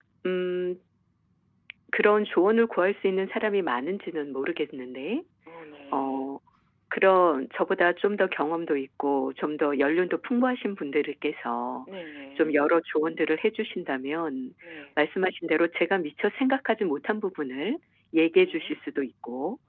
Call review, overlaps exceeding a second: none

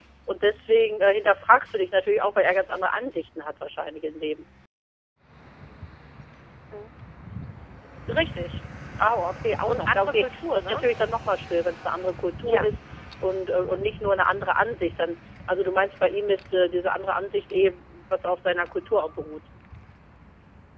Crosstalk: present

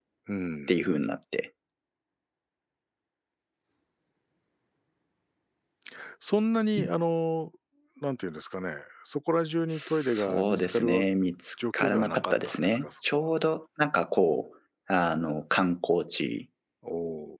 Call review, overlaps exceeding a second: present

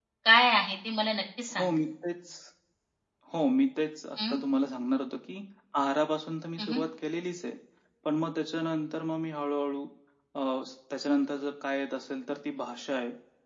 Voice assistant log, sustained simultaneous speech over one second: none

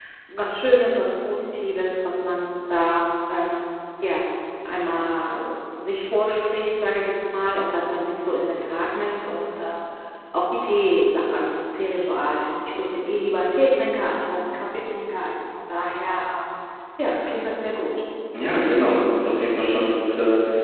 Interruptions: none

